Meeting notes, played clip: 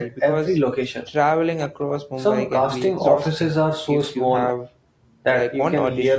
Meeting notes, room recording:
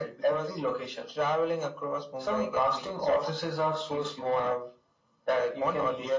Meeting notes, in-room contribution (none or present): none